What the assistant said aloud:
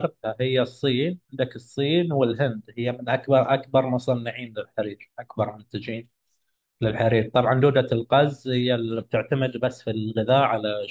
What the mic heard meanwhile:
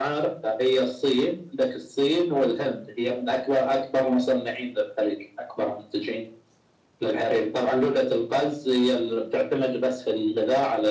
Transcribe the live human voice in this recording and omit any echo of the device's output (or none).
none